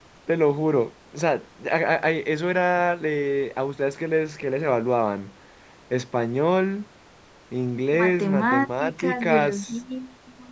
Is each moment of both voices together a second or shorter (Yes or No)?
No